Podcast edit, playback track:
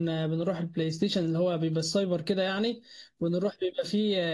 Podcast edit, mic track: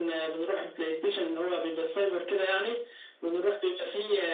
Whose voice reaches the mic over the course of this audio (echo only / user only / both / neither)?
echo only